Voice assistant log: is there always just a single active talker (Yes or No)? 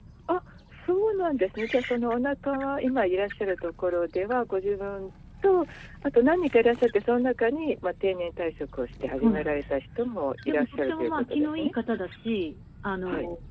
No